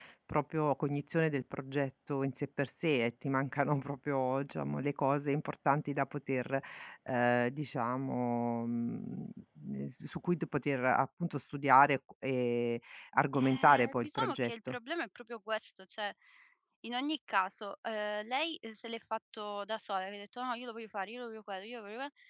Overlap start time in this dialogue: 13.3 s

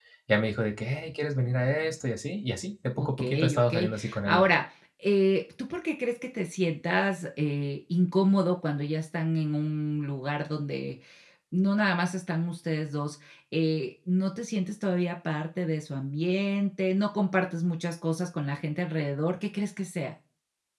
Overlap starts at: 3.0 s

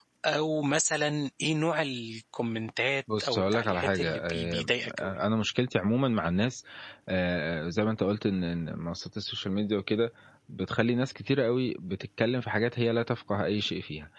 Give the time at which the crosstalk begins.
3.1 s

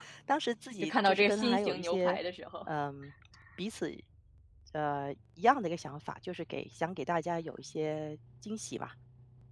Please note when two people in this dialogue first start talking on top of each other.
0.8 s

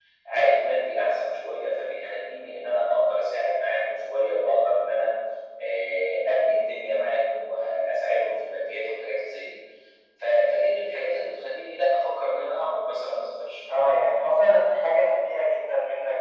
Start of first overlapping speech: none

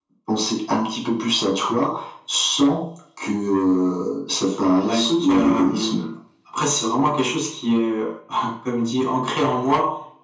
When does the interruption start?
4.8 s

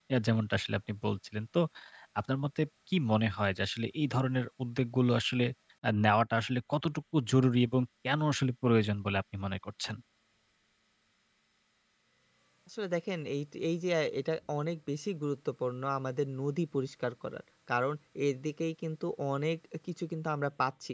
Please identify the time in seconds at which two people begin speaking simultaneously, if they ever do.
none

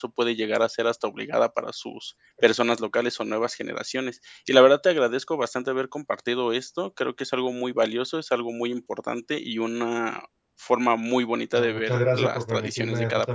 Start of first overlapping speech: 11.6 s

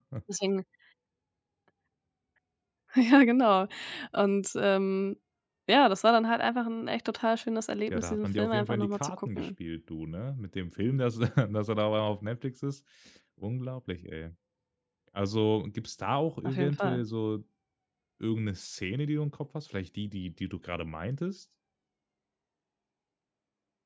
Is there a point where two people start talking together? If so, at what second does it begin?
7.9 s

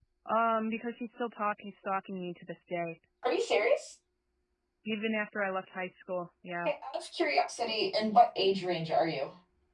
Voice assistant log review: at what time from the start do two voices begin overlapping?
none

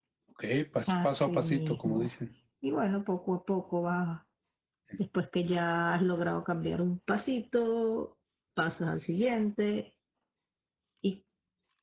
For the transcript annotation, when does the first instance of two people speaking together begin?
0.9 s

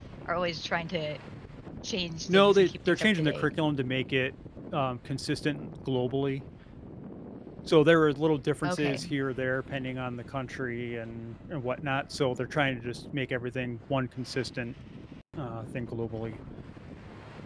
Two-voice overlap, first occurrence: 2.3 s

